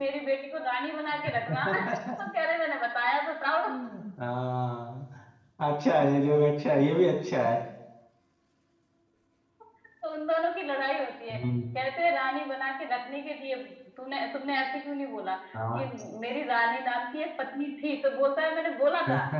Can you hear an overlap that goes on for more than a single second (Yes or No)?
No